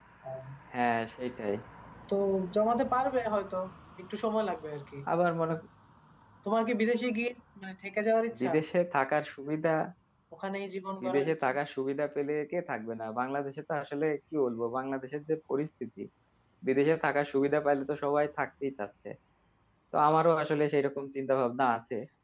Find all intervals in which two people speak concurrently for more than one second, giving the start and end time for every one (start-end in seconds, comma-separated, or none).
none